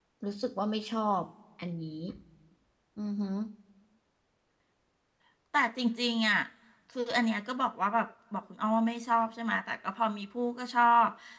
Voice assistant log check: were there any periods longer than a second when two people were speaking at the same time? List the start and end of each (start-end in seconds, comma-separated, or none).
none